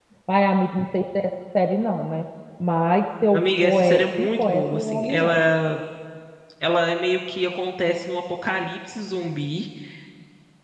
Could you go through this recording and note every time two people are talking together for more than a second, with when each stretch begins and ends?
3.3-5.4

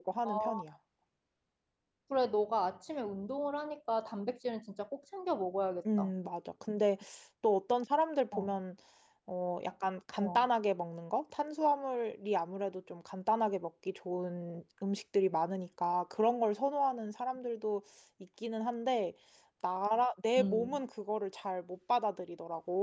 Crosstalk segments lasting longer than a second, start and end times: none

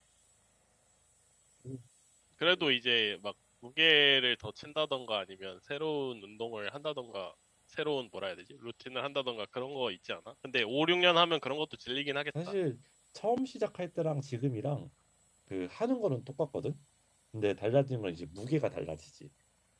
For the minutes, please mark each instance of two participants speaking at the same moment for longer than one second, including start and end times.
none

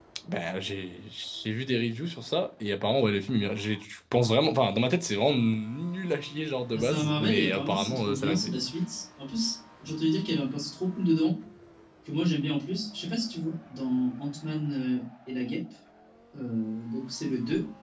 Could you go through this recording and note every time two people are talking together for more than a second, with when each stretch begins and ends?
6.7-8.6

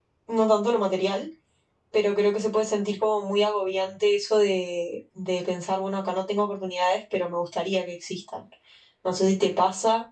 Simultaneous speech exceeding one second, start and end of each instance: none

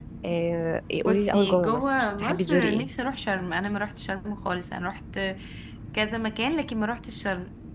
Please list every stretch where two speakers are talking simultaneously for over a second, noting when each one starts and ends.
1.1-2.9

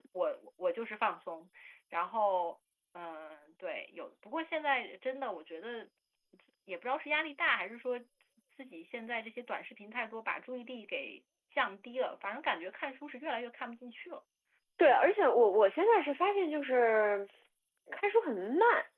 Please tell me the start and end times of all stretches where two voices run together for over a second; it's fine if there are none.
none

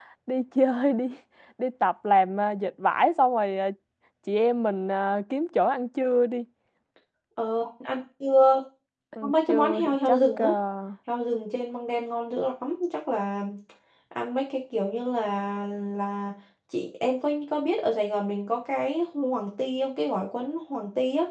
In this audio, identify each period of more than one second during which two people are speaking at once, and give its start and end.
9.2-10.5

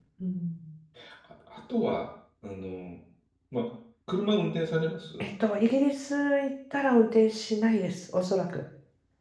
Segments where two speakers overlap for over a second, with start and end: none

